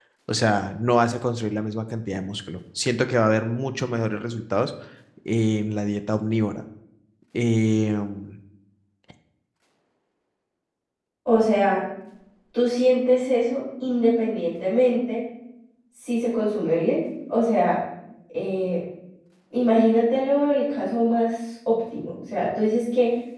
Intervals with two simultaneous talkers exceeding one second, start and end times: none

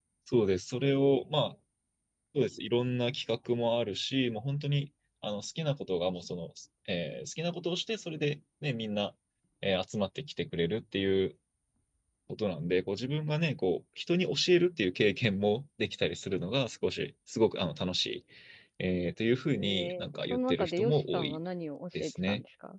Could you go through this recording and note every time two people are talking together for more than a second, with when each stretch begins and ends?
19.6-21.4

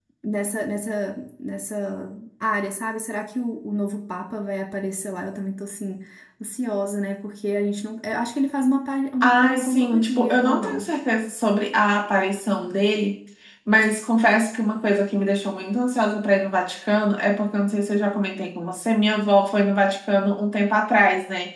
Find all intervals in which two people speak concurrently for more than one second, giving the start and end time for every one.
9.2-10.9

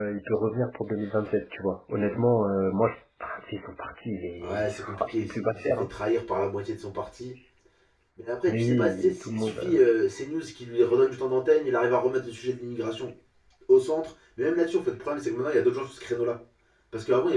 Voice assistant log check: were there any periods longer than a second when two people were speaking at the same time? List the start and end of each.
4.4-5.9, 8.5-9.8

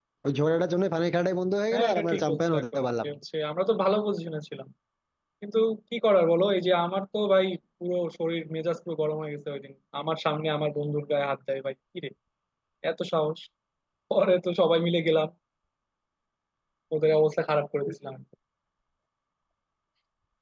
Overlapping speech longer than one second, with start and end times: 1.7-3.1

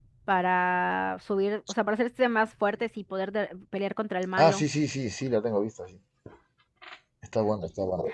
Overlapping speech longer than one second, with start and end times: none

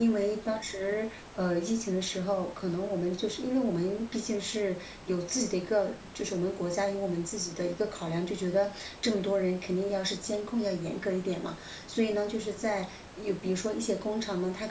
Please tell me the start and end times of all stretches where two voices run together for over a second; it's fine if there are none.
none

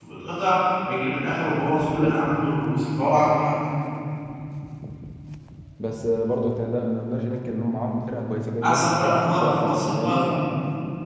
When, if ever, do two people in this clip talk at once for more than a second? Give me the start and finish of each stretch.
8.6-10.3

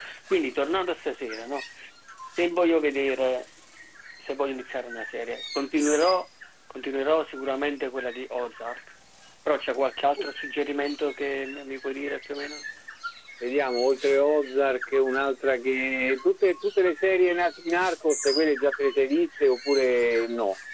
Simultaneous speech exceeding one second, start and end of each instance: none

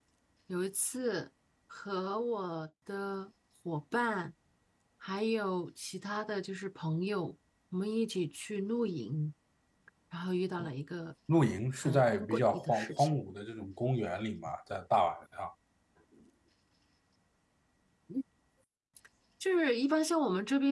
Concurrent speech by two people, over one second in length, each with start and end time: 11.8-13.2

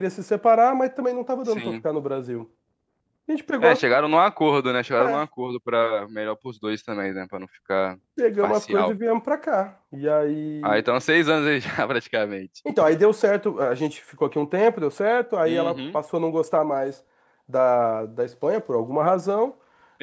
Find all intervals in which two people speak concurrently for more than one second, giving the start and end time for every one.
none

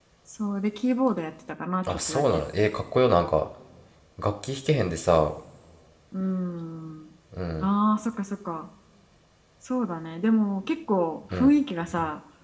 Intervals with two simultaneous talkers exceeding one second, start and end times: none

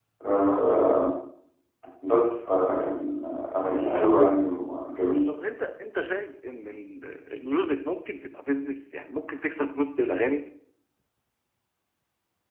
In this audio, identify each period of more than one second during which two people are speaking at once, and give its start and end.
none

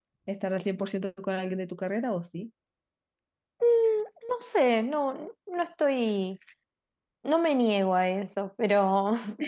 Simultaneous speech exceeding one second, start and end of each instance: none

